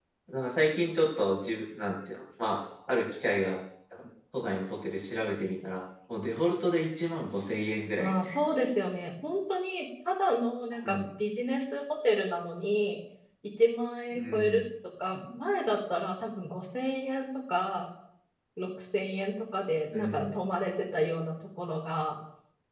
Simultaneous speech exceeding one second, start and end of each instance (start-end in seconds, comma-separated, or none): none